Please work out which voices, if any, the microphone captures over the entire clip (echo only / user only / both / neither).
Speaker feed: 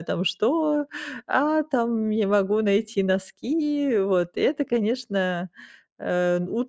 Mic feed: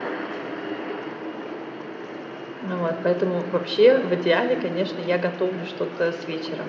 user only